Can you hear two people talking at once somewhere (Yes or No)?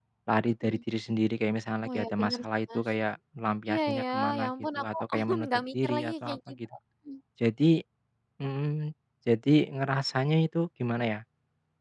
Yes